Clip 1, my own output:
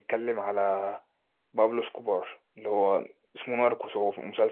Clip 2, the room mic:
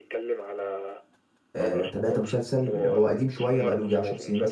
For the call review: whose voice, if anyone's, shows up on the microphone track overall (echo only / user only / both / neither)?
both